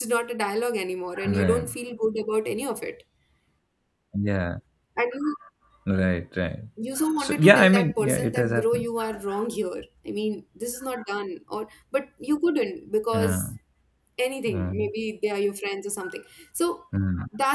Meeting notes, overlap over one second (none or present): present